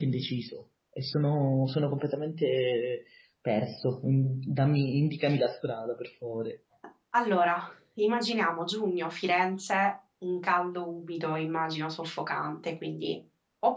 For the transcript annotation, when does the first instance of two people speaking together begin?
none

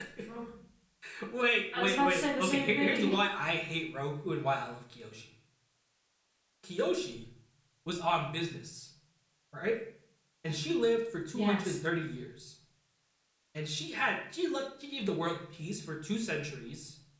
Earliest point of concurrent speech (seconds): 2 s

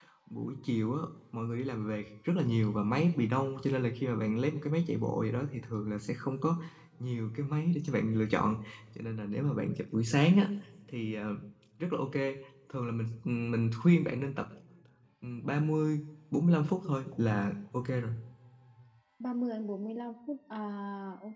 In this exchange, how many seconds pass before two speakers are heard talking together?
none

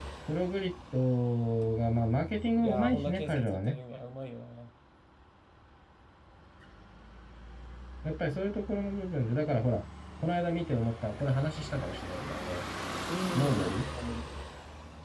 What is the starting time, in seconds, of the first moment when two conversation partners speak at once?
3 s

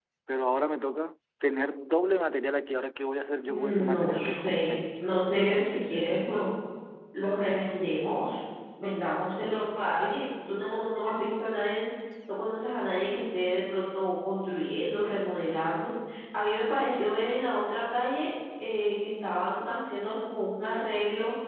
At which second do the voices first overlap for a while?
3 s

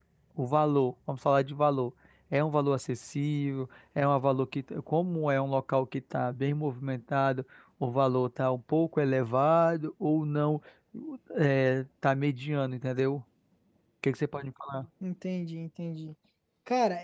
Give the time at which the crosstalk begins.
none

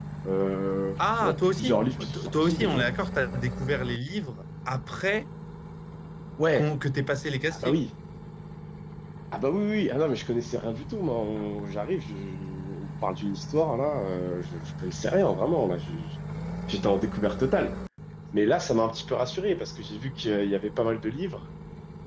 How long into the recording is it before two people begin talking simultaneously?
1 s

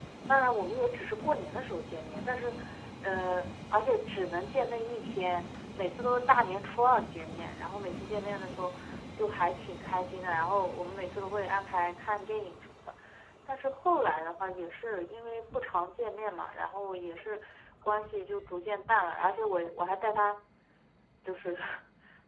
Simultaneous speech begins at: none

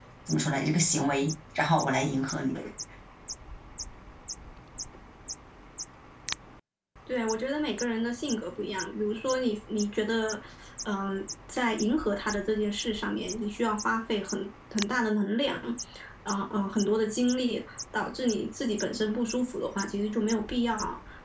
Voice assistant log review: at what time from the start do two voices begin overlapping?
none

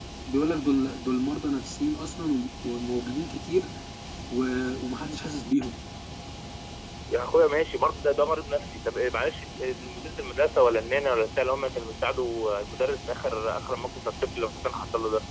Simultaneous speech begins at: none

